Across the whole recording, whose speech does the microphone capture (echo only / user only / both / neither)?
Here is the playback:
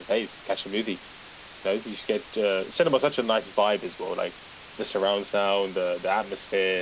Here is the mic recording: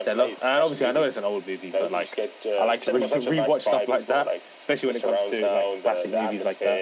both